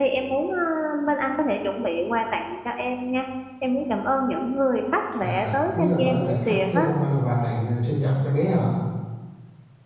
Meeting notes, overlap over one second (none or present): present